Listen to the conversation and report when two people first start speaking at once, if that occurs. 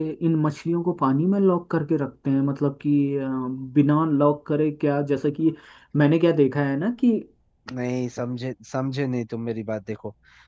none

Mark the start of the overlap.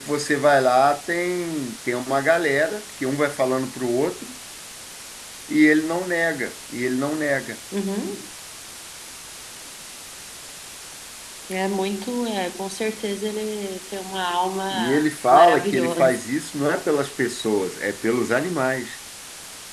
14.7 s

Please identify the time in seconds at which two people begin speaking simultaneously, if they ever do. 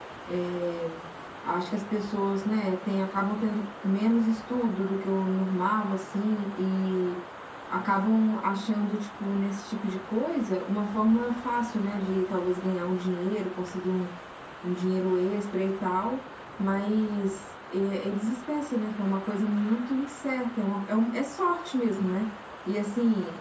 none

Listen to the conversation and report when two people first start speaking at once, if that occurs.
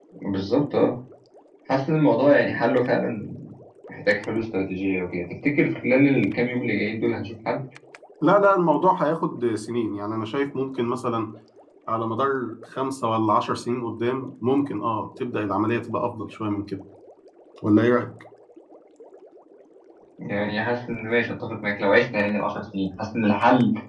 none

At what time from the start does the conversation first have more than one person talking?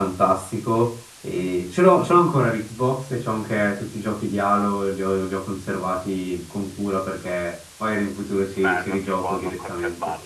8.6 s

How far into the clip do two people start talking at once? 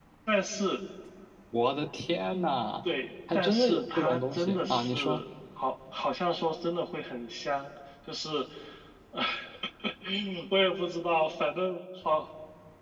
3.3 s

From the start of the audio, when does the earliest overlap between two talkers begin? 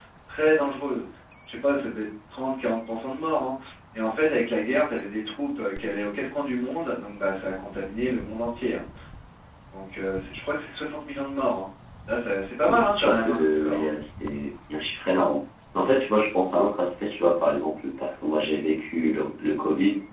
12.7 s

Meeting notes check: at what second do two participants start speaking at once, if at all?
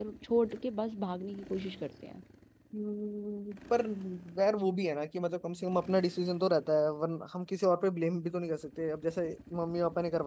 none

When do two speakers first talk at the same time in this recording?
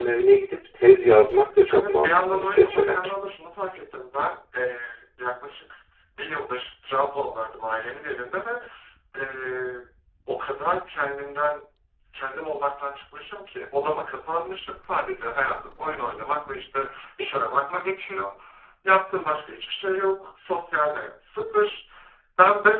1.7 s

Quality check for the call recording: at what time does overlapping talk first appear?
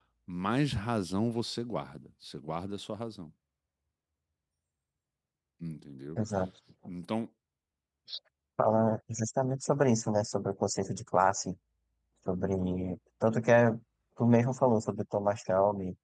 none

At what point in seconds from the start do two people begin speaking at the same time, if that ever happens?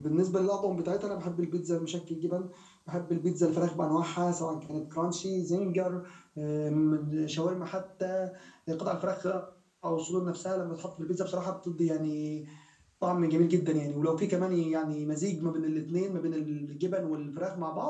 none

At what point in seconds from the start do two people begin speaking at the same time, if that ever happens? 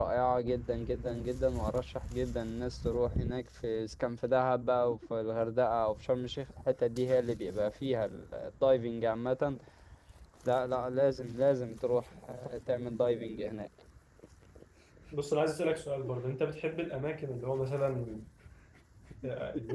none

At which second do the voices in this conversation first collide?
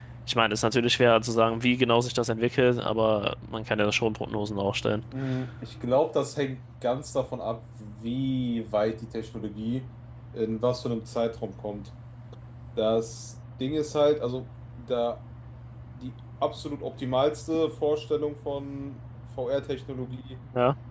none

